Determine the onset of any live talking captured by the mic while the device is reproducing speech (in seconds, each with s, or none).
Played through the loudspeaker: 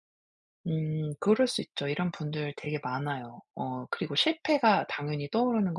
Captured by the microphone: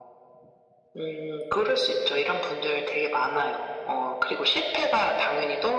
none